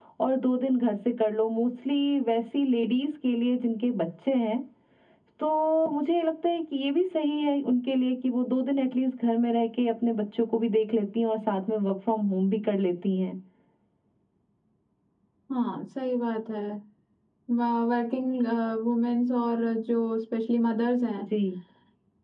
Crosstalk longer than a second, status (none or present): none